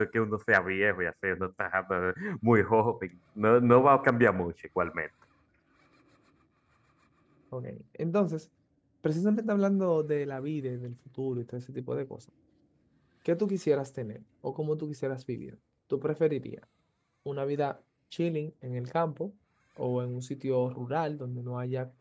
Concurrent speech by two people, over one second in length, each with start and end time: none

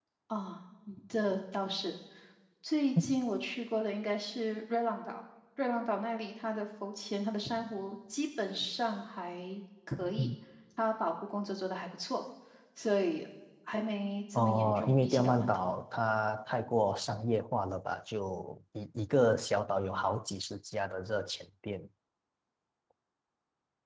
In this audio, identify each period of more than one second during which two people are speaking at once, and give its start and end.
14.3-15.7

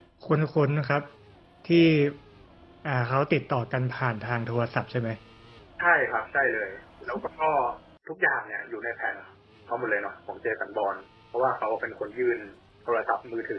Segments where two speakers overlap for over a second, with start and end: none

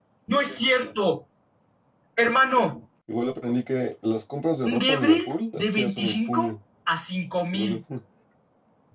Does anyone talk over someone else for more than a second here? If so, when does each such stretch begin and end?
4.6-6.5

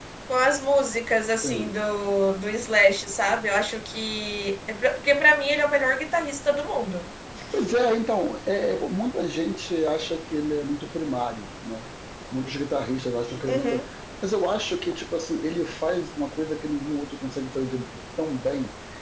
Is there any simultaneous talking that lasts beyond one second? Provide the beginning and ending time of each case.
none

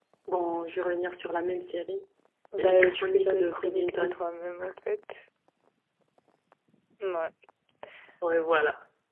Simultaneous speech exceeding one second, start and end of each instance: 2.6-4.2

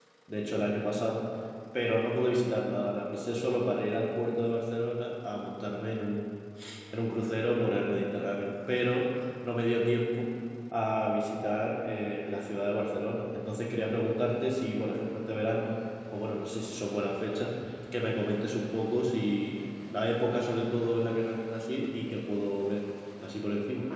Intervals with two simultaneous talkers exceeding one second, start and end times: none

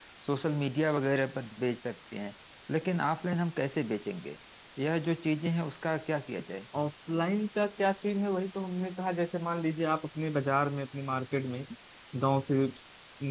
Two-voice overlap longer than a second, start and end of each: none

